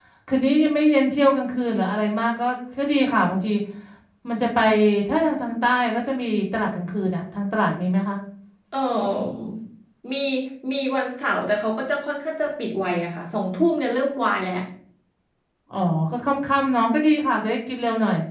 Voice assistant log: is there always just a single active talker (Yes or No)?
Yes